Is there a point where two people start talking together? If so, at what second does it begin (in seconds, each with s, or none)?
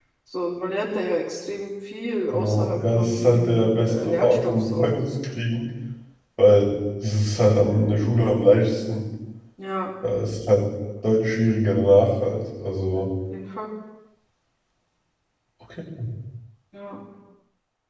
2.3 s